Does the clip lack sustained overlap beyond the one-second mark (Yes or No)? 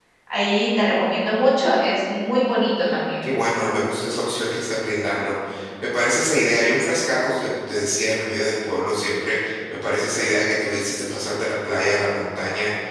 Yes